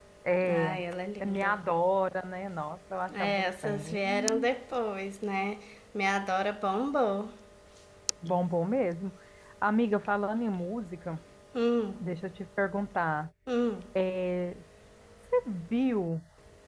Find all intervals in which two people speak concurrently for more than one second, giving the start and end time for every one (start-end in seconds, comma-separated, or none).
3.1-4.5